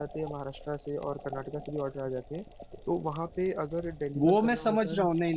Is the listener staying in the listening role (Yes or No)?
No